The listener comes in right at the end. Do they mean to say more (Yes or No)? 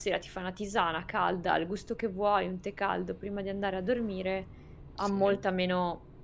No